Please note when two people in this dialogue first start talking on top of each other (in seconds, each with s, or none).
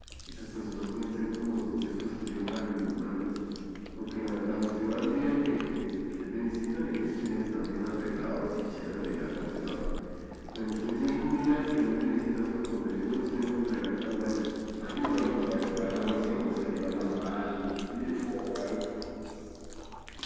14.9 s